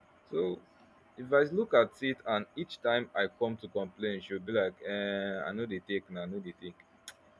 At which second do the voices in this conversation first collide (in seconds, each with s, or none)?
none